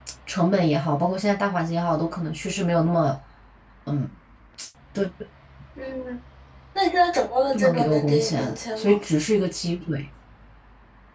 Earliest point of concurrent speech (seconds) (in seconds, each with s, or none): 7.5 s